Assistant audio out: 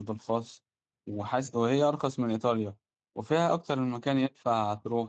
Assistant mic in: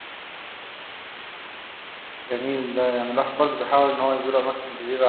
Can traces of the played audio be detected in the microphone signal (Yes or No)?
No